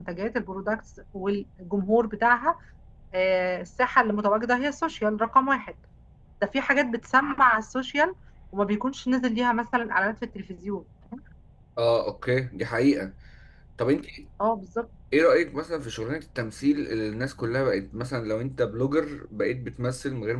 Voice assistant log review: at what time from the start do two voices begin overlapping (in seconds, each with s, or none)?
none